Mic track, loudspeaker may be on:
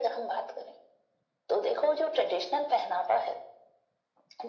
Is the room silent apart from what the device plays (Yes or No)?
Yes